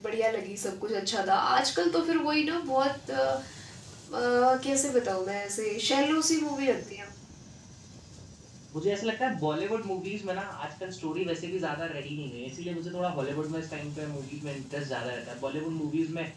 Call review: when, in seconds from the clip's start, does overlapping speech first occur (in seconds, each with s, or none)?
none